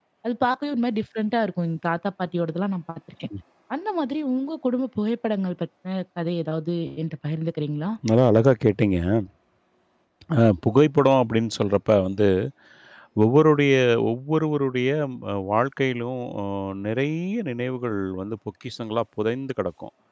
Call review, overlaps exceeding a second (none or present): none